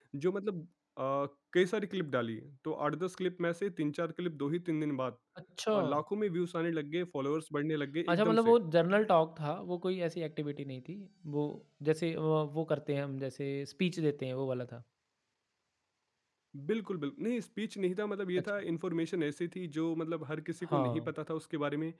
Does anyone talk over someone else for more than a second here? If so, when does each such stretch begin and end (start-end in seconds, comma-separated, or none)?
none